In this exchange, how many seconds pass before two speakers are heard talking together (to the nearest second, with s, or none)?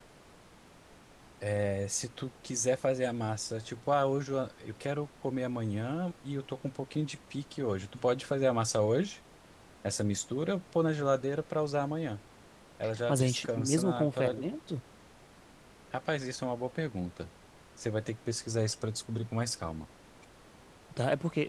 13 s